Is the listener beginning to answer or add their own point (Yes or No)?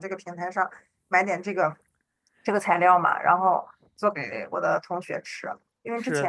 No